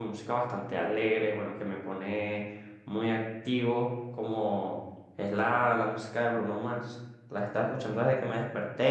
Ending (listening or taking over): listening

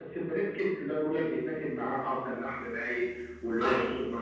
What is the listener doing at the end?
listening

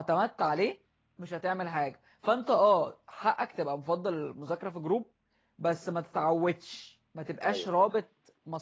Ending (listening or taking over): listening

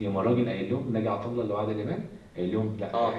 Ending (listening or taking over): listening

